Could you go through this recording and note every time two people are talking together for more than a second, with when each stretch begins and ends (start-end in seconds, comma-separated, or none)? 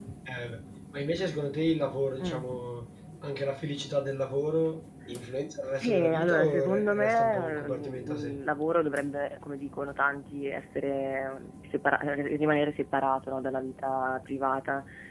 5.8-8.4